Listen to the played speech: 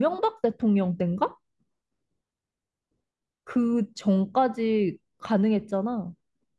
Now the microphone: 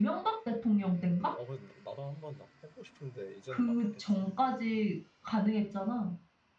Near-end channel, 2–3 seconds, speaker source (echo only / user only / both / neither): user only